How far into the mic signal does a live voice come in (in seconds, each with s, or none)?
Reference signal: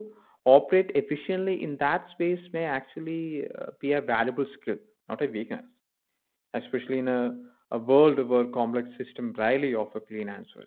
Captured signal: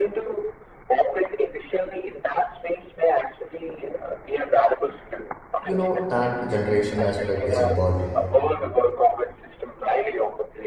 5.6 s